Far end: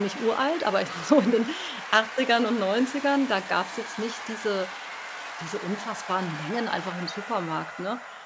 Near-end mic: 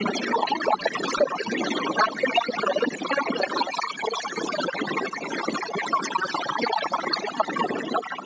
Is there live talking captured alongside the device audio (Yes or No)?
No